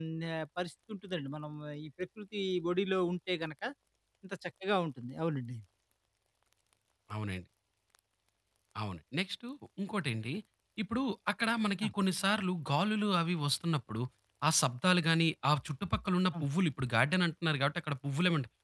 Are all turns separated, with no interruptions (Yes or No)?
Yes